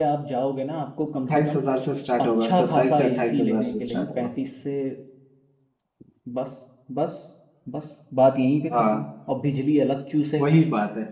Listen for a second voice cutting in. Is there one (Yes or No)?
Yes